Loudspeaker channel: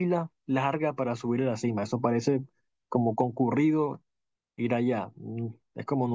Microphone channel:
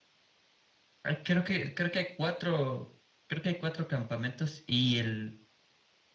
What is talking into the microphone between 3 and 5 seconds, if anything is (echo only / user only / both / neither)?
user only